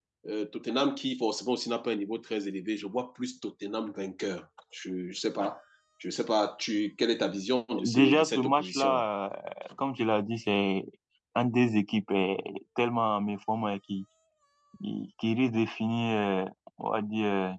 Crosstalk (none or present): present